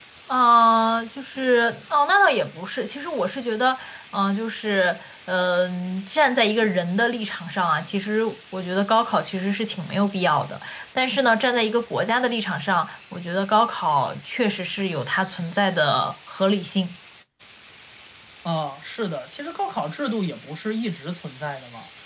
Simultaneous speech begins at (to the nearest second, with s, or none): none